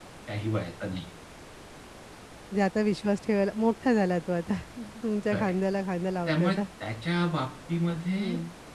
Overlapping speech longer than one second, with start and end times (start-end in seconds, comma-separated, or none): none